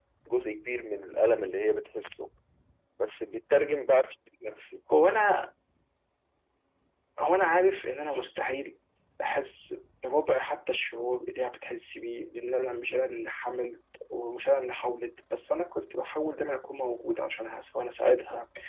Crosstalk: none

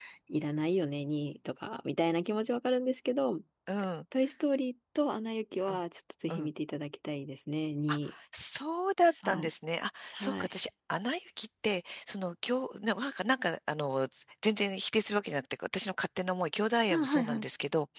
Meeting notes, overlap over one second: none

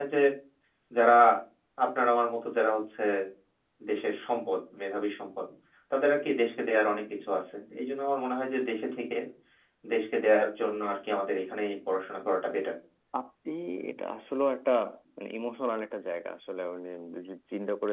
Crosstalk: none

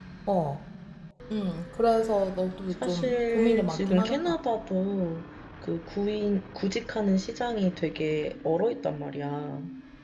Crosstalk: present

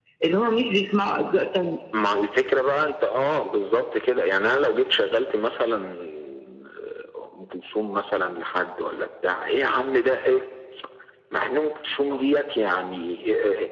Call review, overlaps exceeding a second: none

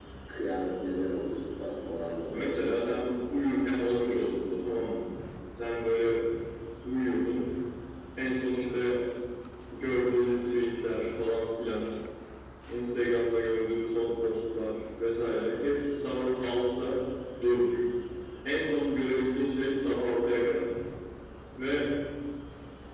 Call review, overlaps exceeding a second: present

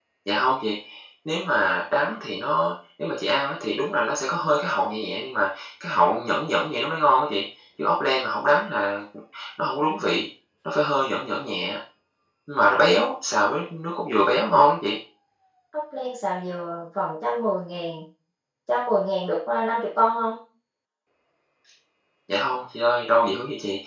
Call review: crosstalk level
none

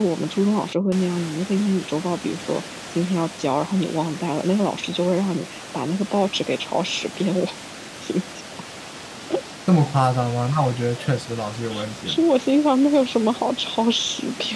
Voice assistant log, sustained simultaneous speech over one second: none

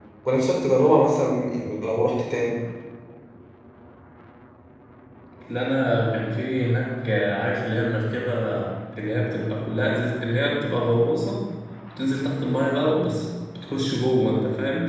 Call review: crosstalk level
none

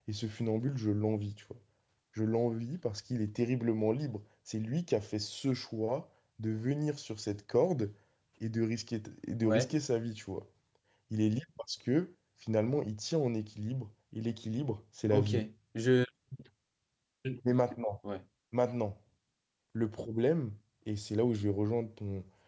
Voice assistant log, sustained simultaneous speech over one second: none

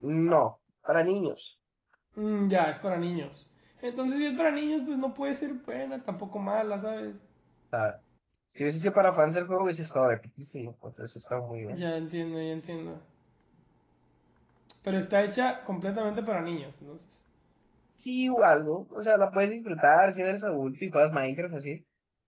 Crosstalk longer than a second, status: none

